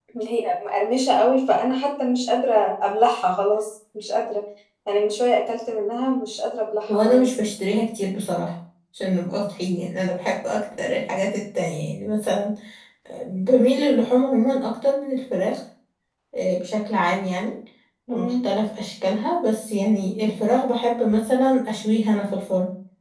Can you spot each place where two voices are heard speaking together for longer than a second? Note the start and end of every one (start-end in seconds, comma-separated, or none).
none